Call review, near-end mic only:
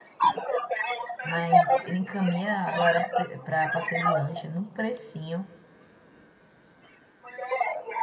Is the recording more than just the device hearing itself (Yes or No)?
Yes